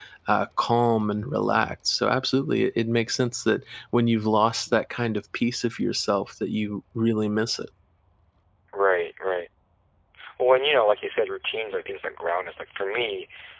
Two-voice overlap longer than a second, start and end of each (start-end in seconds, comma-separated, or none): none